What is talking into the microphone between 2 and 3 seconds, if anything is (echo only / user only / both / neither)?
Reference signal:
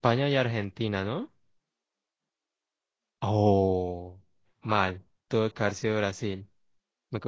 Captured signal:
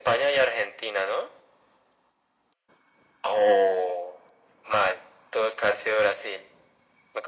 neither